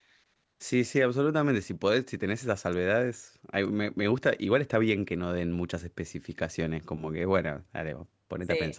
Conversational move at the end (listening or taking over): taking over